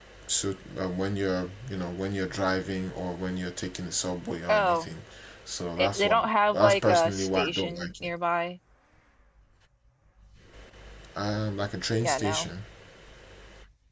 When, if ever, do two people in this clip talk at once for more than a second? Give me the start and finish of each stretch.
6.5-7.9

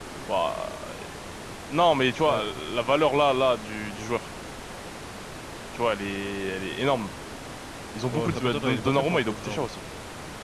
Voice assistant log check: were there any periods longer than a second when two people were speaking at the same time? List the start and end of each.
8.1-9.7

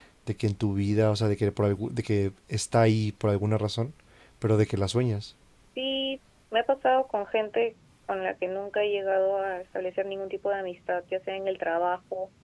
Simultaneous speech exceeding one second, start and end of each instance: none

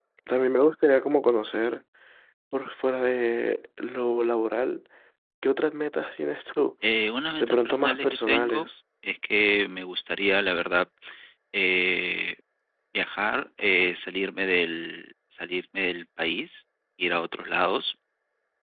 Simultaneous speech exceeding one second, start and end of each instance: 7.4-8.7

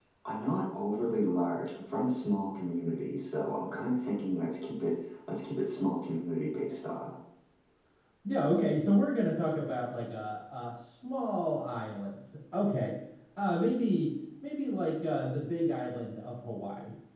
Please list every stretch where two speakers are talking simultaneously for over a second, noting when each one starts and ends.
none

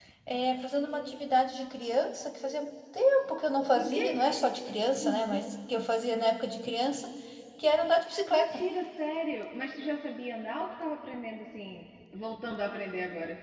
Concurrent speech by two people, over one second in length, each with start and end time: none

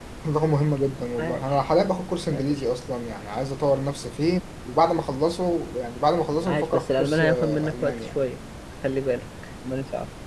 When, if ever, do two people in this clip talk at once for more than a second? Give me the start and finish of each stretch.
6.5-8.0

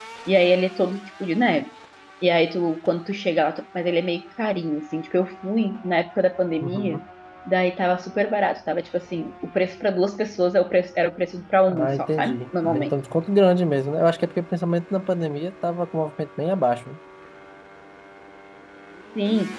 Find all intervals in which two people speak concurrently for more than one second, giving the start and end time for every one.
11.7-12.9

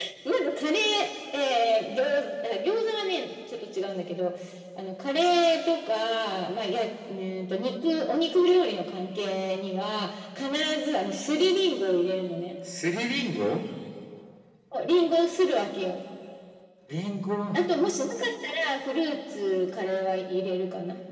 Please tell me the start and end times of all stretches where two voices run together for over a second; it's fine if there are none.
none

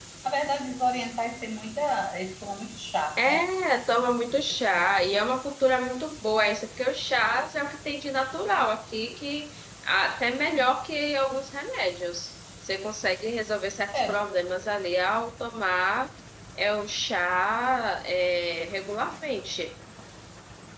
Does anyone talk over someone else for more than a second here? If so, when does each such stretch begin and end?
none

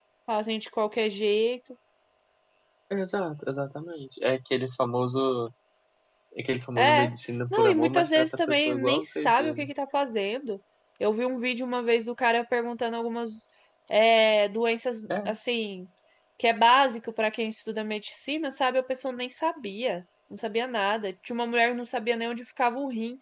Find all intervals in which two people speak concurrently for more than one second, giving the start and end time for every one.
7.5-9.7

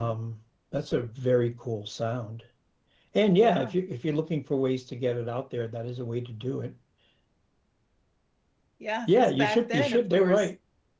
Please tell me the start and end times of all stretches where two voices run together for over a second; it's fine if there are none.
9.1-10.5

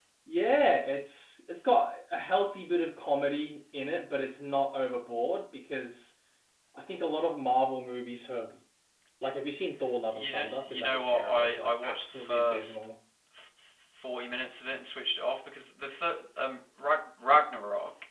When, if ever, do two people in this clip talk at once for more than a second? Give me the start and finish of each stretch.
10.1-12.8

